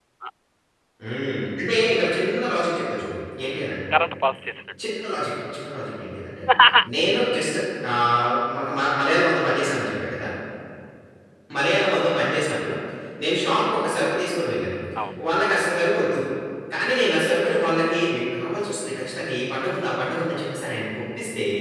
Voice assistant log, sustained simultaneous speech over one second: none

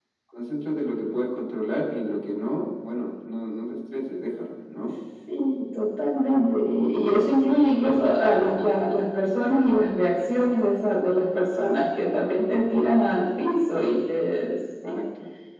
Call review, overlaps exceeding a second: none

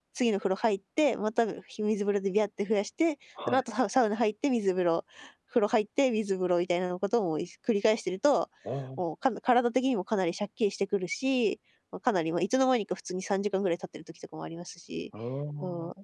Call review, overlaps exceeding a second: none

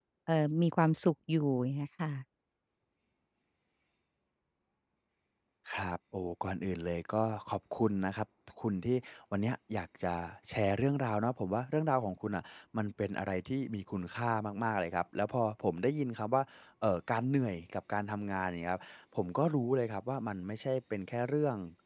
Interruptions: none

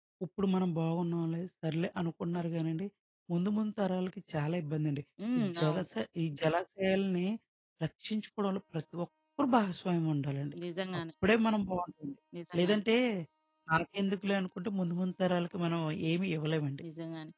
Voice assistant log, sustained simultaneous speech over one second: none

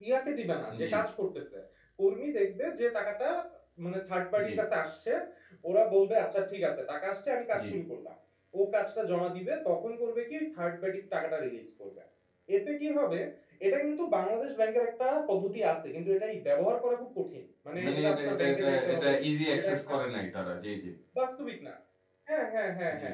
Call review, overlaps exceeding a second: present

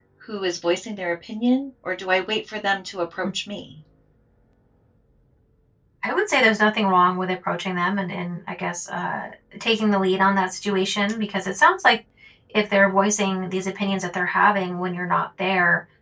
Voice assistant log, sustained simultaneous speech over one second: none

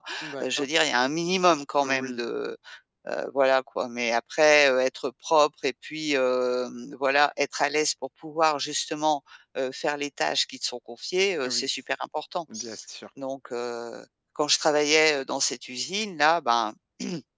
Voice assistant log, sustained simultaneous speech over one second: none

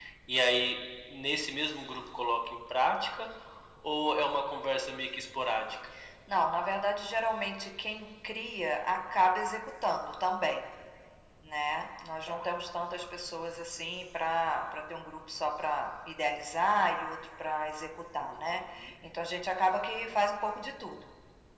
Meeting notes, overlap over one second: none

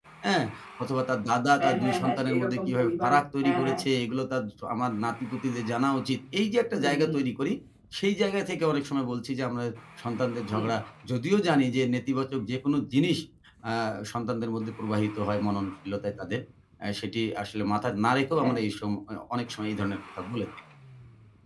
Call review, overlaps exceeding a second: present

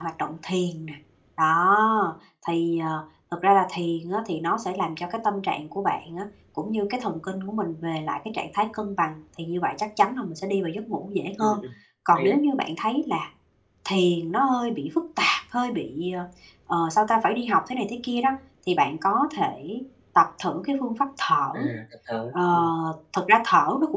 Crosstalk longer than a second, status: none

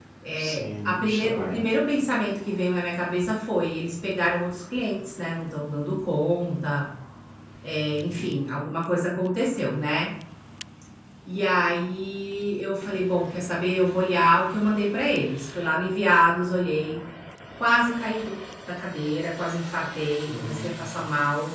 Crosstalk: present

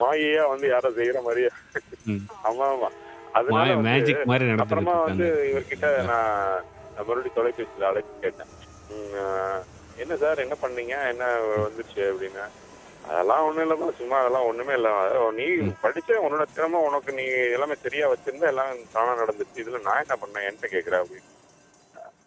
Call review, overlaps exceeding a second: present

